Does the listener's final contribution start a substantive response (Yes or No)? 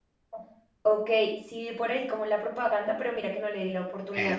Yes